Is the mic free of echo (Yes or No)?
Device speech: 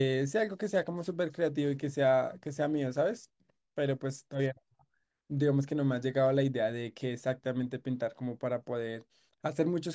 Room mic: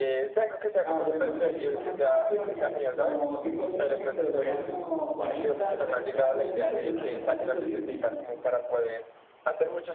No